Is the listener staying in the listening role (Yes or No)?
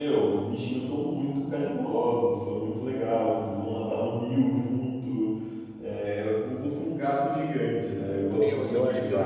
No